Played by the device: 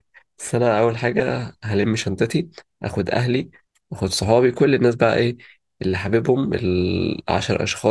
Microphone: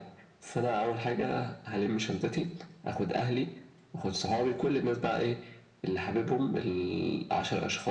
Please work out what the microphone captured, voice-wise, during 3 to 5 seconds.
echo only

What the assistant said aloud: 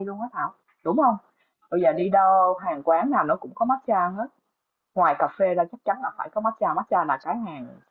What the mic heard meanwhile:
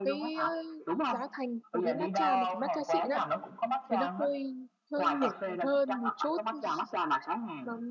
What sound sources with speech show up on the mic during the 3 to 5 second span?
both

